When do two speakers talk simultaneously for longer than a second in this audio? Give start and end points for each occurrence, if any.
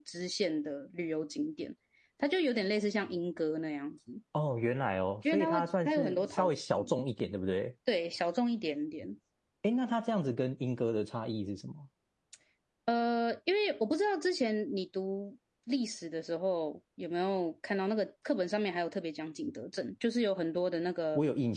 5.3-6.9

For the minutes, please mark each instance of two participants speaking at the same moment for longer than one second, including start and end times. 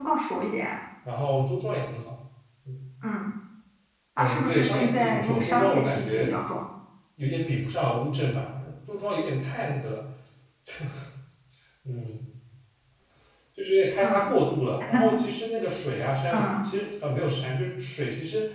4.2-6.3

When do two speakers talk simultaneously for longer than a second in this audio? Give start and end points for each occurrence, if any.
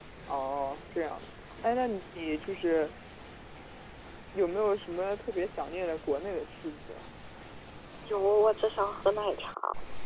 none

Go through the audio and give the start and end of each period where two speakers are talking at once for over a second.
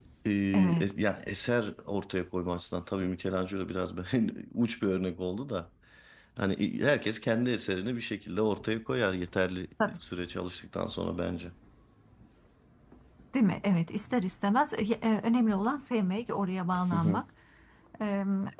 none

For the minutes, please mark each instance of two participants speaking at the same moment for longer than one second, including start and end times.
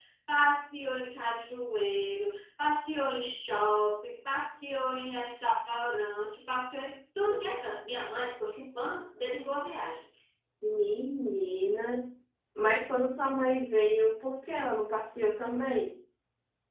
none

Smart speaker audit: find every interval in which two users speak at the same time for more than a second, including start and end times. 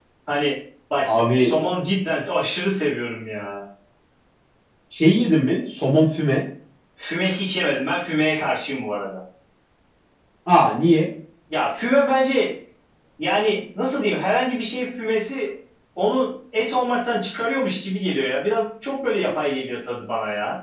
none

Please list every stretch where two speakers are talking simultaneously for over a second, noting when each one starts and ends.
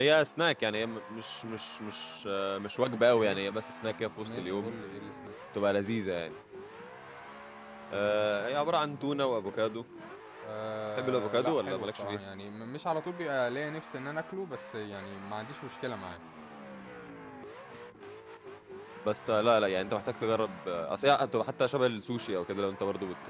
10.9-12.2

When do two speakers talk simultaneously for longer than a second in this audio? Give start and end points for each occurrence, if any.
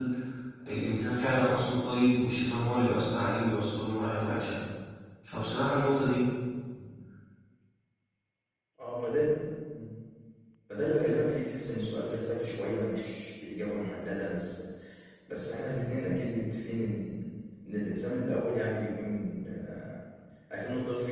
none

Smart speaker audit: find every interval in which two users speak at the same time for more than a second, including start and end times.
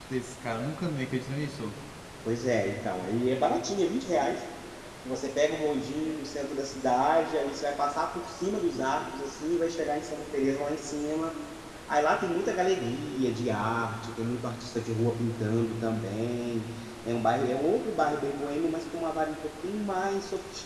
none

